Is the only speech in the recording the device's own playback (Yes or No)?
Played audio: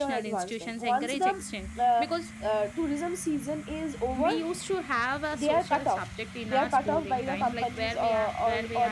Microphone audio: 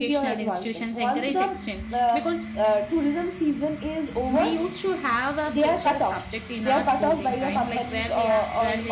Yes